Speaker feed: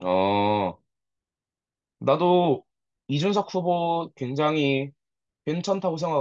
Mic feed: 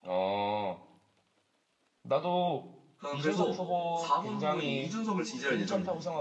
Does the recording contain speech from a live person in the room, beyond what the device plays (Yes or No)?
Yes